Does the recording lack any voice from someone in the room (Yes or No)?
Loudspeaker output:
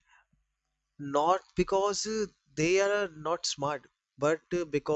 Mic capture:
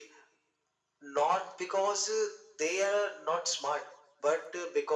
Yes